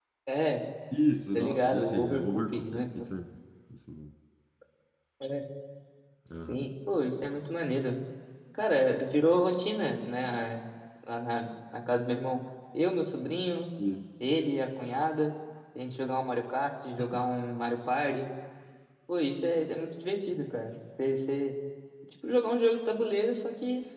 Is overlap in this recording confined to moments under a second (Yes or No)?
No